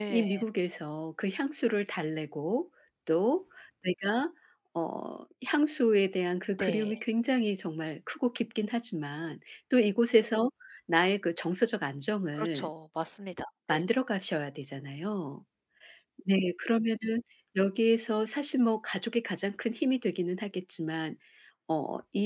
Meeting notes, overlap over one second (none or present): none